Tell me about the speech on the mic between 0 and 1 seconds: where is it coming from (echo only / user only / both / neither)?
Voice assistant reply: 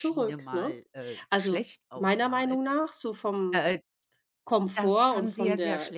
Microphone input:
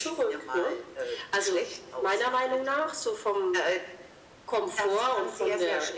echo only